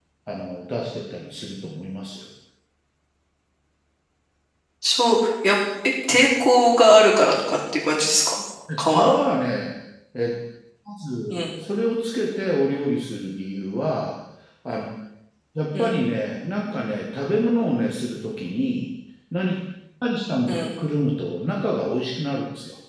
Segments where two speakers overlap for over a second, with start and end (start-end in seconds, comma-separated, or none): none